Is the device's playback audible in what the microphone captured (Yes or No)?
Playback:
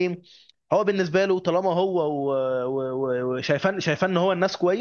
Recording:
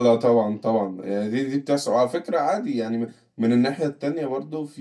No